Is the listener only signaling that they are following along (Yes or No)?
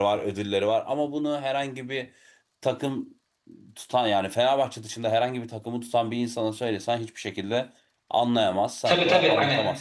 No